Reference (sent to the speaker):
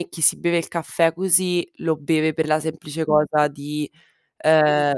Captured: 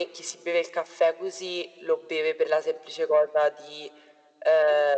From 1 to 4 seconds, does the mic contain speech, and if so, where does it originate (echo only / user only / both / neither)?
echo only